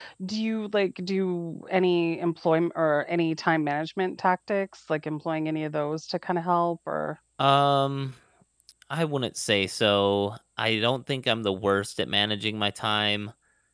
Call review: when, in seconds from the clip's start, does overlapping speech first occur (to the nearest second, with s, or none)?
none